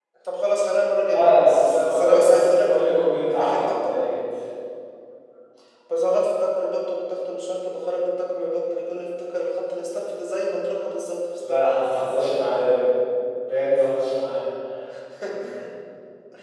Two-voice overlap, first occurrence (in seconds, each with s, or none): 1.1 s